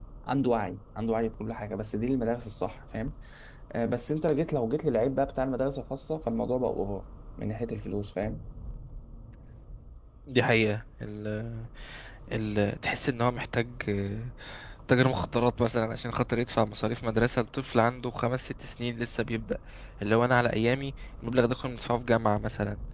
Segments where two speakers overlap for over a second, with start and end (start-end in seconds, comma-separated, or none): none